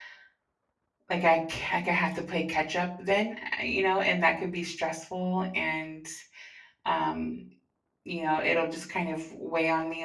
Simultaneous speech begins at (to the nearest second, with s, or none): none